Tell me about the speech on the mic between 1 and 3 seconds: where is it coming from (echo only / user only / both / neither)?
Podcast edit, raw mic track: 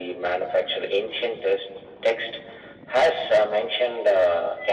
echo only